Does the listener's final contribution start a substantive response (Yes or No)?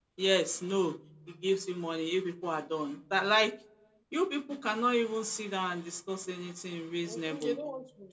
Yes